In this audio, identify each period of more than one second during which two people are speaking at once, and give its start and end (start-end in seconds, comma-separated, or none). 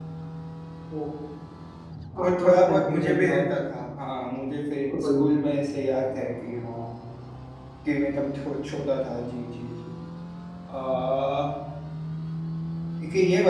2.2-3.4